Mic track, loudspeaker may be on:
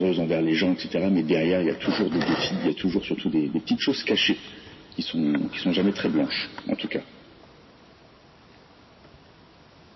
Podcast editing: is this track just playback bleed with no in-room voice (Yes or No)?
Yes